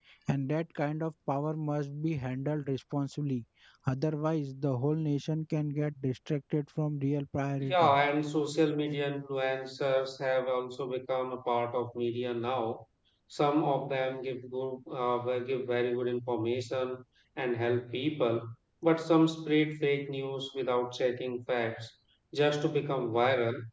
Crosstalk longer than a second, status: none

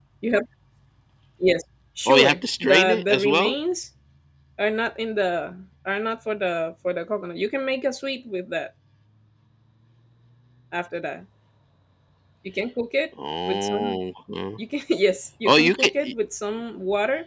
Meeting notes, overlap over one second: present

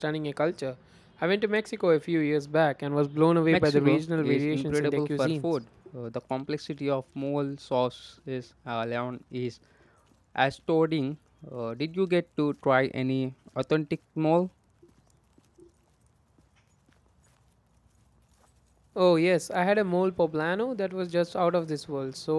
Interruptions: present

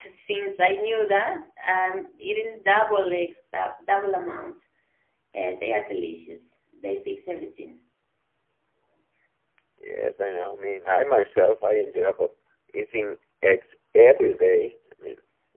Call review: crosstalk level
none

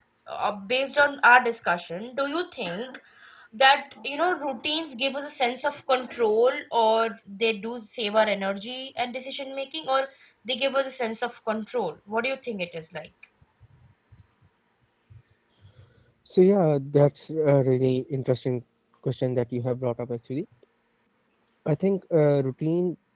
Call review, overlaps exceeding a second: none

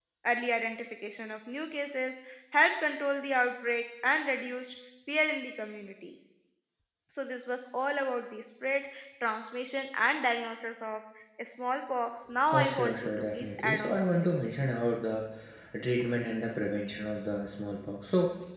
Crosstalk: present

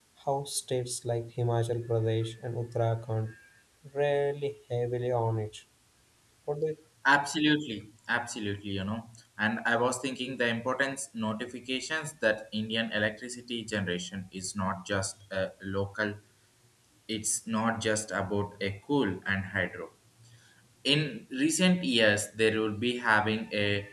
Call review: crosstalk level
none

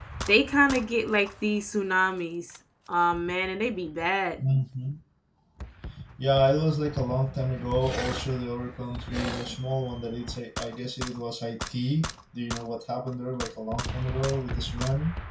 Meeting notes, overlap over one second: none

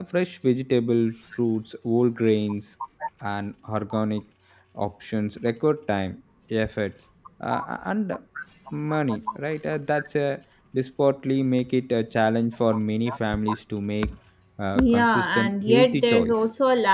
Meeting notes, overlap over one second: present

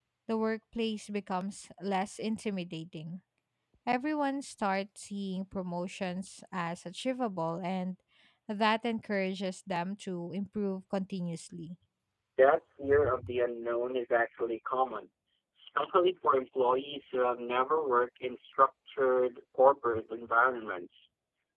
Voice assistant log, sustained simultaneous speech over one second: none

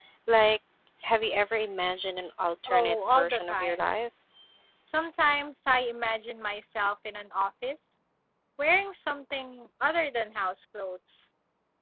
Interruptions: present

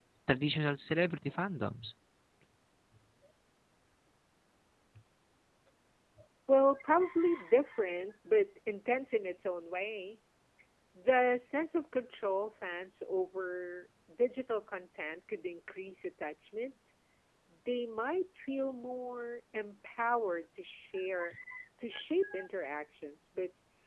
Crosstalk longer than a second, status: none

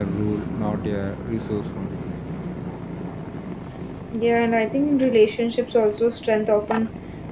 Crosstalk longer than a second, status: none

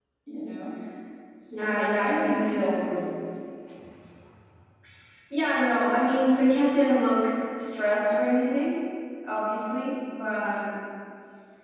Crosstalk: present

